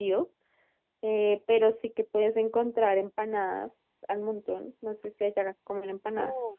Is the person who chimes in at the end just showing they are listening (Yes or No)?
No